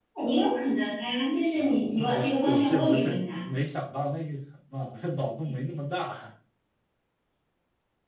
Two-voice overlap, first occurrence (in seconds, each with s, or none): 1.5 s